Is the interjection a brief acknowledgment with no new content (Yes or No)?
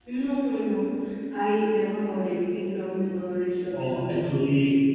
No